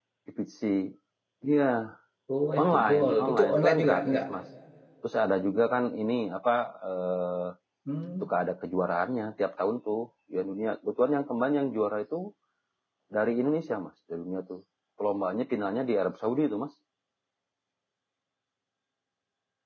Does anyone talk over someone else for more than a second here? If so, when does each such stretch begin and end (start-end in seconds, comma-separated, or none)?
2.6-4.2